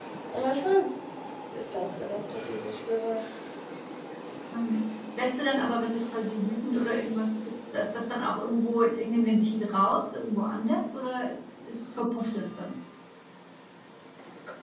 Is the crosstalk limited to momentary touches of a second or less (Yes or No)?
Yes